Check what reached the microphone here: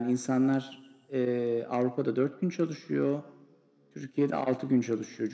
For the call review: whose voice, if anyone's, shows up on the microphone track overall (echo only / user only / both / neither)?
echo only